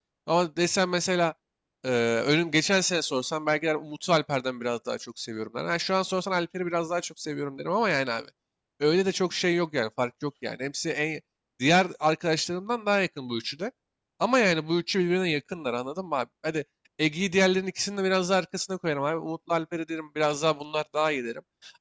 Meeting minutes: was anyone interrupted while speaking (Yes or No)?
No